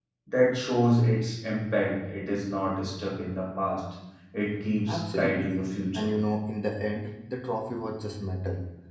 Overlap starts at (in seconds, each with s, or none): 4.9 s